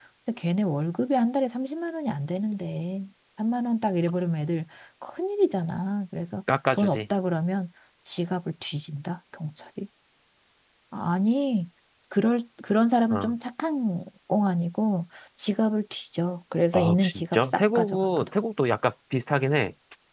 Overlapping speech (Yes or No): Yes